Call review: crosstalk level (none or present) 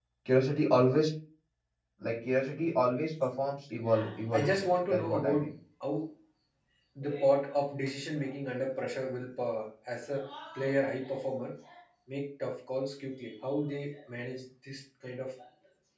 present